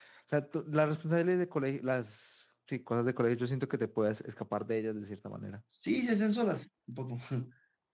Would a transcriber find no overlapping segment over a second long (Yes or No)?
Yes